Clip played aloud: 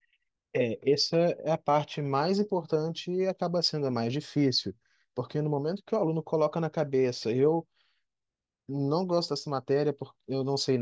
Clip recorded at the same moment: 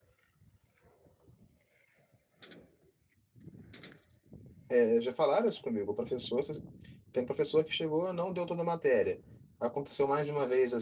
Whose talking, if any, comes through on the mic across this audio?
user only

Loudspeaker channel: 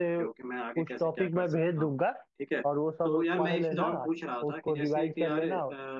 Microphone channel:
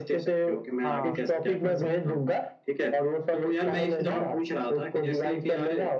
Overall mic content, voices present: both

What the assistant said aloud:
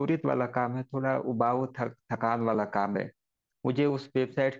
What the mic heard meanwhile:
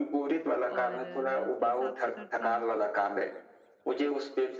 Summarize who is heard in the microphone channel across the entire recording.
both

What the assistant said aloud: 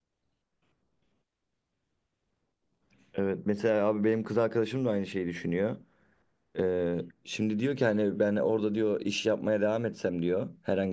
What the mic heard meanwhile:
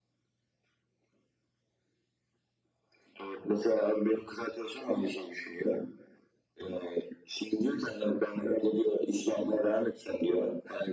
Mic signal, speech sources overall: echo only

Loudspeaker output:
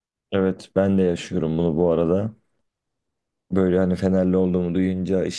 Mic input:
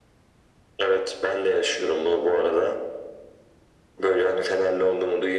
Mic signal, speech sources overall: echo only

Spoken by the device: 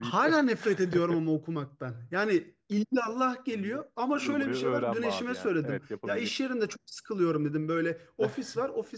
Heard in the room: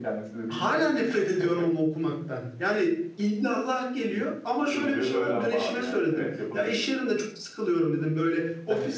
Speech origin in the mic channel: echo only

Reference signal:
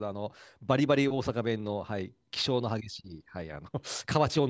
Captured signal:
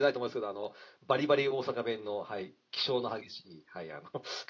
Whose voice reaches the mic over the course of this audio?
echo only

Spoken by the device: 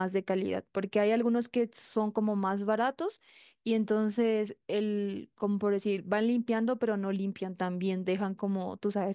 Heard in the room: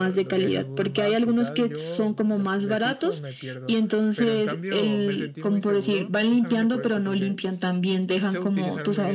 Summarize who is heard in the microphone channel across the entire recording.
both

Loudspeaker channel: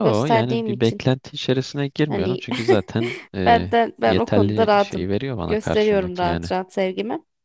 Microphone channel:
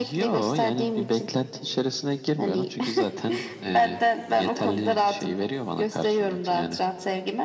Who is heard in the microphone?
echo only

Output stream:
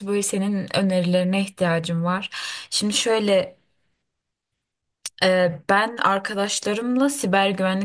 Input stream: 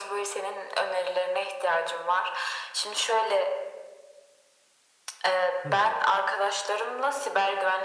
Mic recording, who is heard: both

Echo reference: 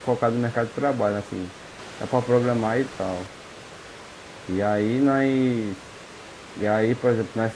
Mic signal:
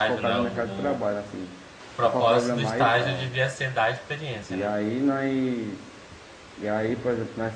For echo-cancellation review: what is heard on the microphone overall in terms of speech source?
both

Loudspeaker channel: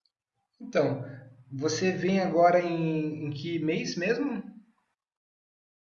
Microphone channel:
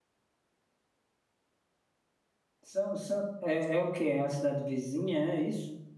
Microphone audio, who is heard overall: user only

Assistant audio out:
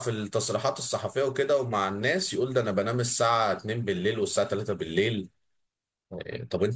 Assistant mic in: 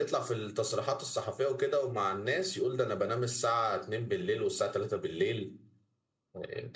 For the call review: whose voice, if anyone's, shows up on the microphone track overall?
echo only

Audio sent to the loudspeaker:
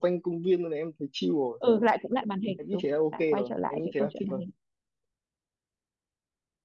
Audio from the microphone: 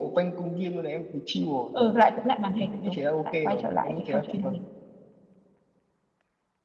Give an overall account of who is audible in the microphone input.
both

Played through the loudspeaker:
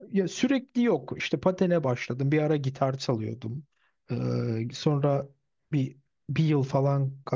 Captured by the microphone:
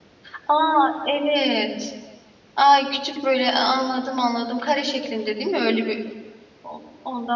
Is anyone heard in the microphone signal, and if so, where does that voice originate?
user only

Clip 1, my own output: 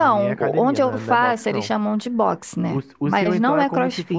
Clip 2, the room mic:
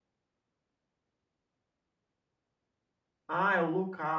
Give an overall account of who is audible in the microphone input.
user only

